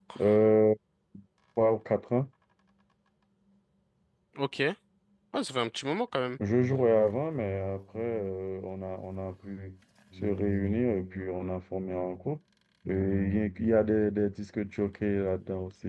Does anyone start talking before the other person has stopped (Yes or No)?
No